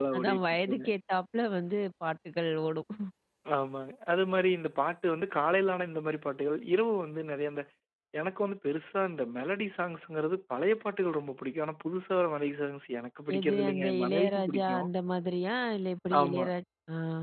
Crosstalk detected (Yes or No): Yes